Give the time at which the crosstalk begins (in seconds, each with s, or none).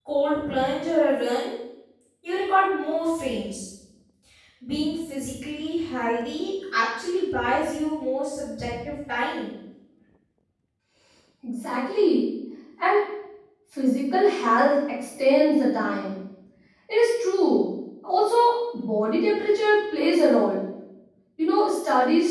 none